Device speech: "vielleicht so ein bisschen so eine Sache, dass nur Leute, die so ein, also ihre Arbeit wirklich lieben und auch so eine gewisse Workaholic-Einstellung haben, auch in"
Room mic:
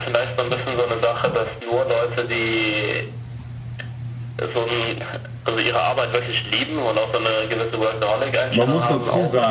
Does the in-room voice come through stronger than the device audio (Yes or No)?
Yes